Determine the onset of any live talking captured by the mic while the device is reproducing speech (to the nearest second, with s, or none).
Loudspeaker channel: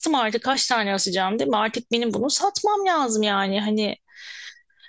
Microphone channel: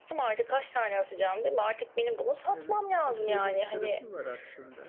3 s